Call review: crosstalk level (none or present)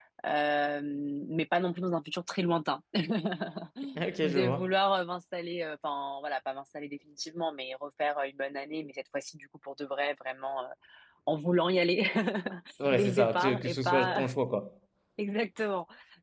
present